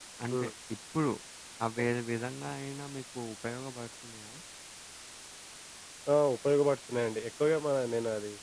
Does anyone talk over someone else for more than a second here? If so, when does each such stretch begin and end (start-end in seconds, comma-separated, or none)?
none